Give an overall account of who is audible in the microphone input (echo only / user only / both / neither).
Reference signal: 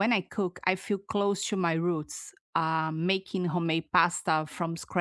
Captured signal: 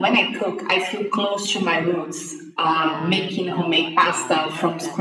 both